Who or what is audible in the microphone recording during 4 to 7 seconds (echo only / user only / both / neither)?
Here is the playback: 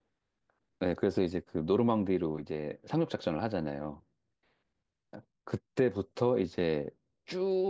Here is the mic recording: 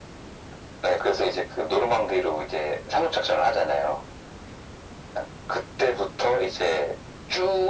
echo only